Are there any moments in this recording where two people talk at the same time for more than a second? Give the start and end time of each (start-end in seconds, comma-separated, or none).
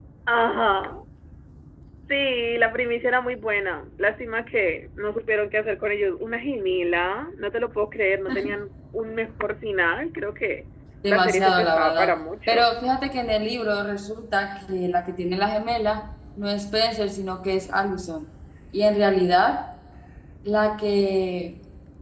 11.1-12.7